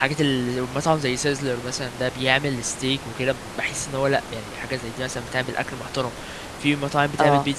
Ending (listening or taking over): listening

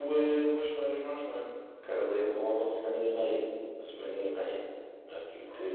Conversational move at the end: taking over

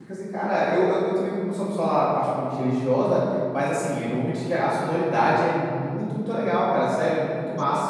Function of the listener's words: listening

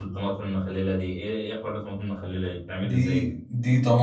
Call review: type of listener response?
taking over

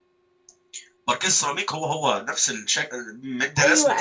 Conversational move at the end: taking over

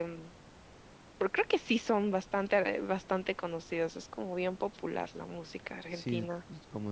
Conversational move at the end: taking over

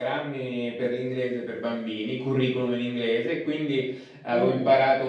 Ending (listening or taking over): listening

